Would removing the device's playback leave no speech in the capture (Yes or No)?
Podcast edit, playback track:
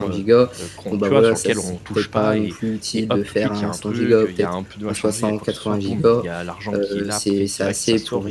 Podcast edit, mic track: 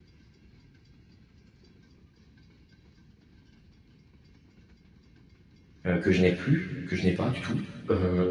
No